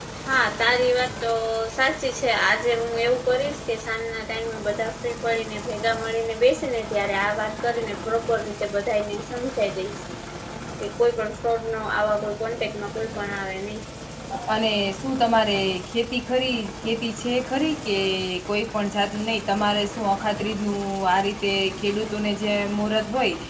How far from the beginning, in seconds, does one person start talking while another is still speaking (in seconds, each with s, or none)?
none